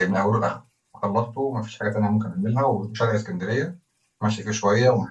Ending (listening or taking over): listening